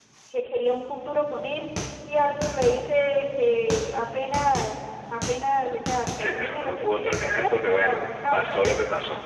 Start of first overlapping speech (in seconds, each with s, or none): 6.2 s